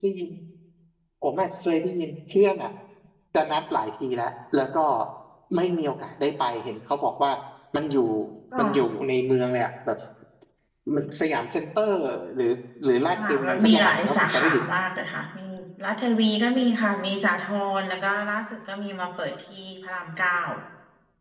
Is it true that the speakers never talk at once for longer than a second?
No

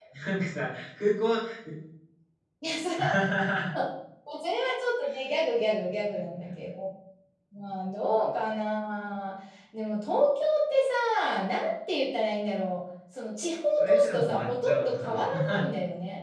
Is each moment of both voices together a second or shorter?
No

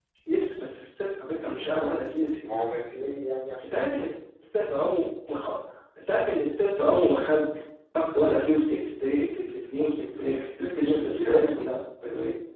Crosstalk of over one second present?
Yes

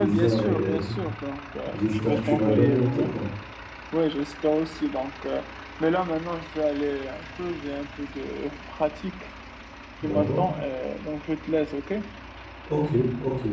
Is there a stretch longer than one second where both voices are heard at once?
Yes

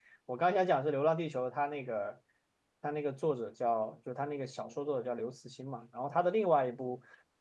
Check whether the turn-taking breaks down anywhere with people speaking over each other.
No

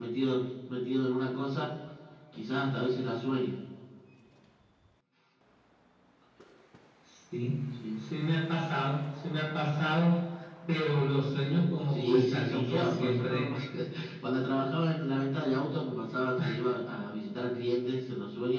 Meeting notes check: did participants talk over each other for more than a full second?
Yes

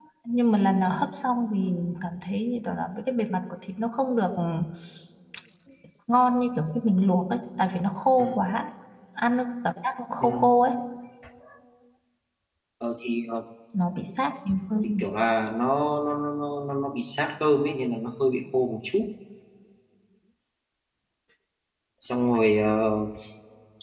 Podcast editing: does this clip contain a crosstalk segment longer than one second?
No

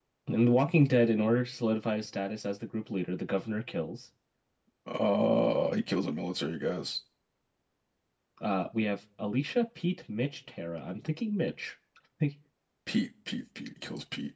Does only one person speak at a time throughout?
Yes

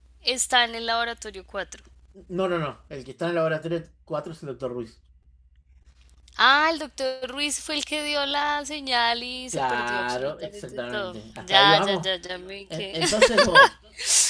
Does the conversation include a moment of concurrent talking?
Yes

